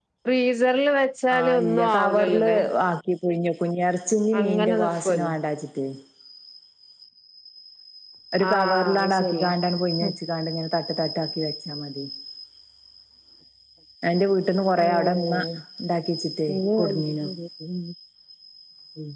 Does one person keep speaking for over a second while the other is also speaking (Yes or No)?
Yes